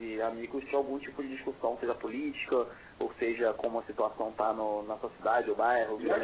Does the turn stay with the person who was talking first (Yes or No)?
No